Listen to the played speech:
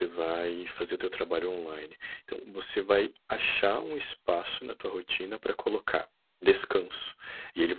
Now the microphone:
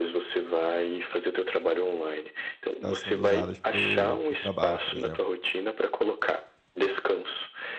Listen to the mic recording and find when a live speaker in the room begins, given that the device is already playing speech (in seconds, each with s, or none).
2.7 s